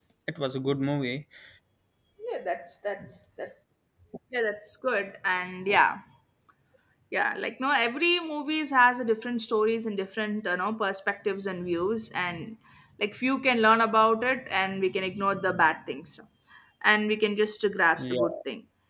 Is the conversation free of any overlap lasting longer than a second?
Yes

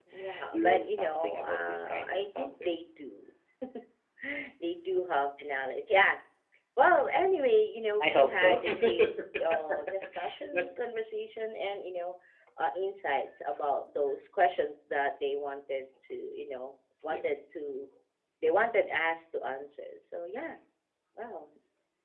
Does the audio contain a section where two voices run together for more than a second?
Yes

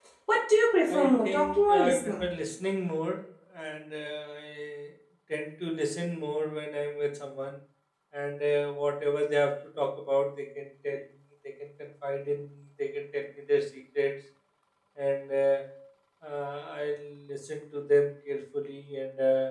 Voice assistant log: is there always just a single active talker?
No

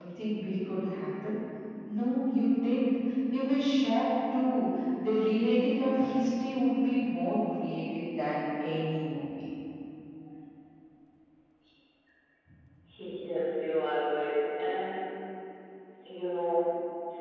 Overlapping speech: No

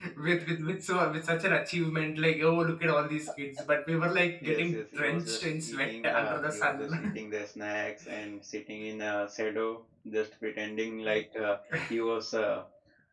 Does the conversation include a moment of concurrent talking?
Yes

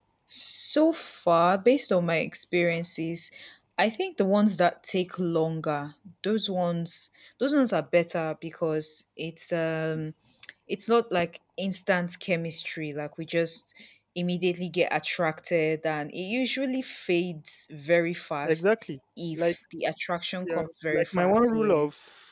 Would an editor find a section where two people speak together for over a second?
Yes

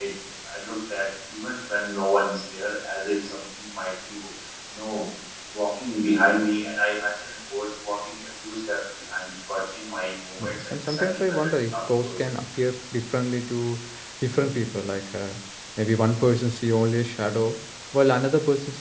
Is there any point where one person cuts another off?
Yes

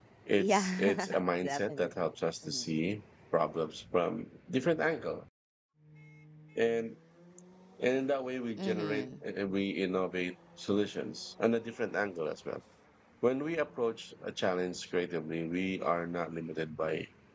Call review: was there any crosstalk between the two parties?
Yes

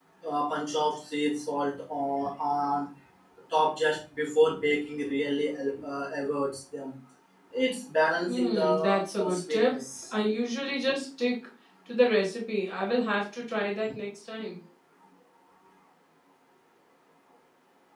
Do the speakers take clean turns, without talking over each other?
No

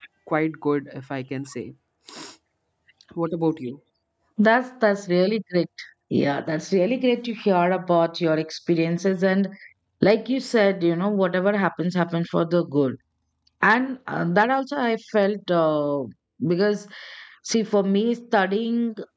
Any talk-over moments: No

